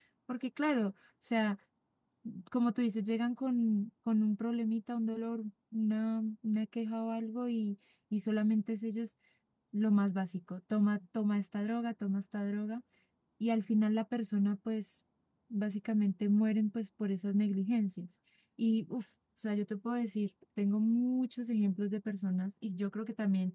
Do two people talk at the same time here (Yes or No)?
No